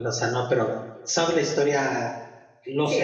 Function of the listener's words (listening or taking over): taking over